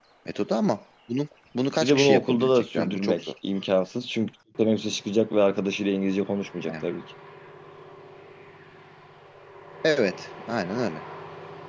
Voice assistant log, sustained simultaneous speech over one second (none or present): present